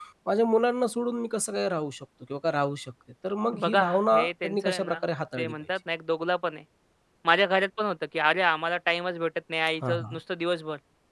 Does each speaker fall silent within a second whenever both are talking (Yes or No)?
No